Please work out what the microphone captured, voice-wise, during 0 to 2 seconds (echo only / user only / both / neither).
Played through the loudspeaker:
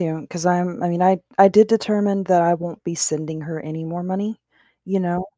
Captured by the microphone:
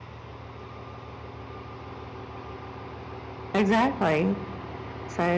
neither